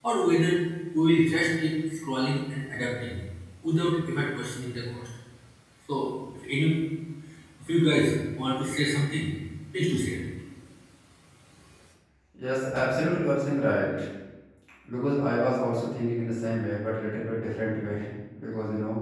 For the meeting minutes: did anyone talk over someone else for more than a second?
No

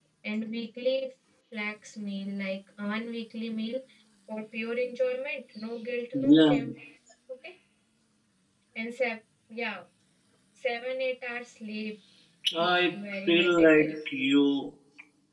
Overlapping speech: Yes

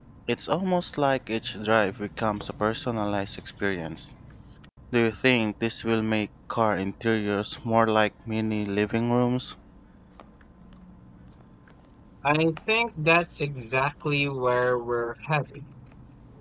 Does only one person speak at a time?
Yes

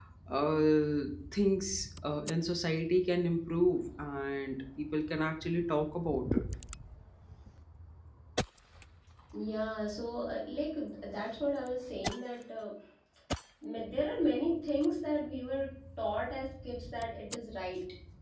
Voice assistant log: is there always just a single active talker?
Yes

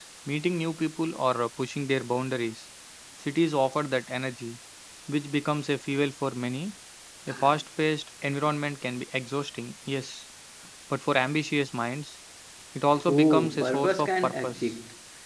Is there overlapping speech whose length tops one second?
Yes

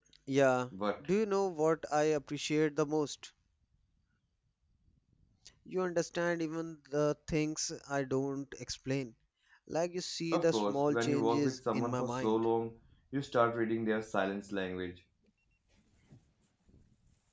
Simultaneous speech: Yes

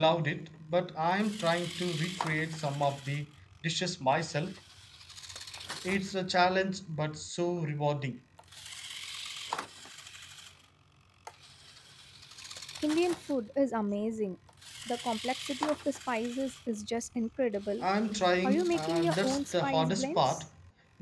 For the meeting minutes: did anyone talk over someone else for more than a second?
Yes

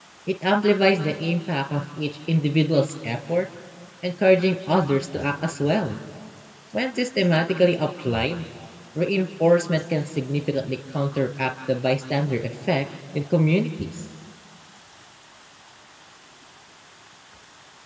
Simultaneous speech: No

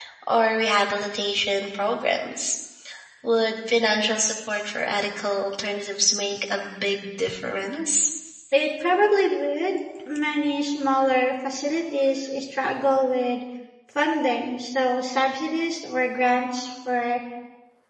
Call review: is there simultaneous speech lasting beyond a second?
No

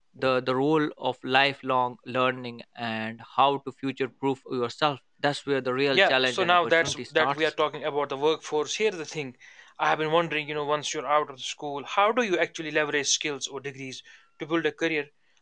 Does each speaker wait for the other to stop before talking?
No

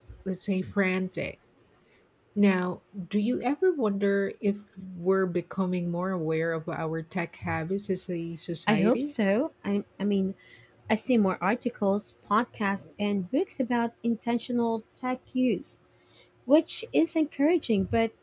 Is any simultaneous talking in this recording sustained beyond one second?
No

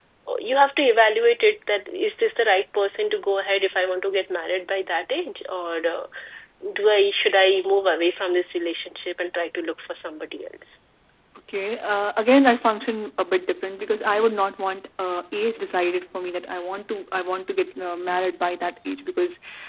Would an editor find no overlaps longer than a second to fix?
Yes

